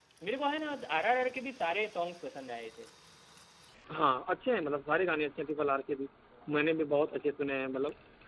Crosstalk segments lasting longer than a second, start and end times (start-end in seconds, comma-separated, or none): none